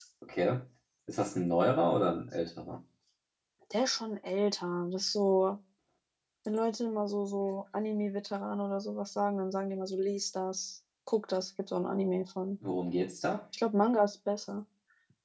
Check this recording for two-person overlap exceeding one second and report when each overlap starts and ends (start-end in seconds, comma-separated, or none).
none